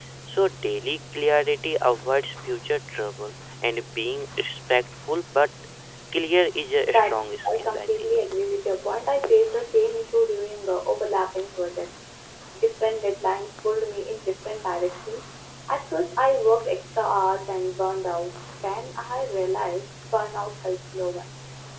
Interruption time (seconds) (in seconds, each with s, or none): 6.8 s